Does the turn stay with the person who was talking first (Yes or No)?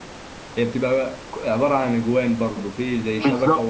No